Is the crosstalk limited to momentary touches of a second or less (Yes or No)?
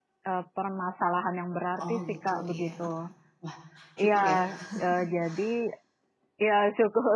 No